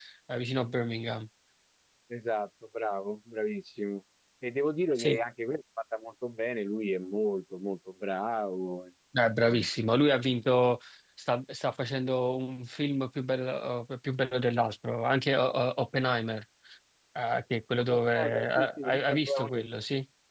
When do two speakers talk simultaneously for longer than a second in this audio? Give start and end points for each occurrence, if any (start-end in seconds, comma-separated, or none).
17.8-19.6